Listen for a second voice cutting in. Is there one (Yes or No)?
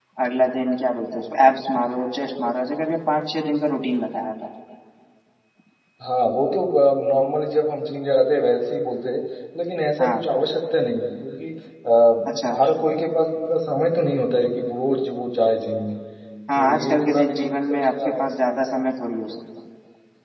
Yes